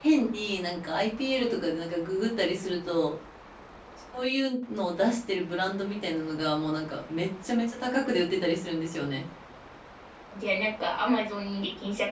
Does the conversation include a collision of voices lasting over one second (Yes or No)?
No